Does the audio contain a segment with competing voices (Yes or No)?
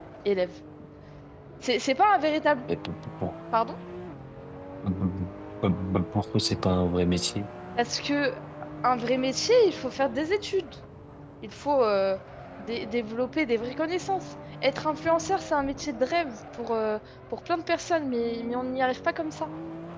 No